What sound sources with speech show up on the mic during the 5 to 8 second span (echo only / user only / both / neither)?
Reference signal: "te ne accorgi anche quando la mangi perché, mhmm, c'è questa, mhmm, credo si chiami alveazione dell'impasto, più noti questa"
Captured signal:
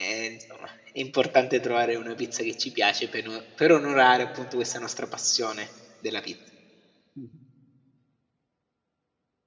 user only